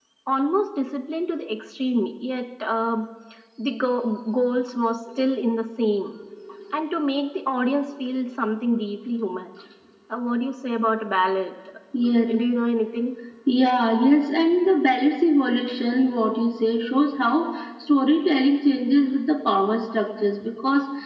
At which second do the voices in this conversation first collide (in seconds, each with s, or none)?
none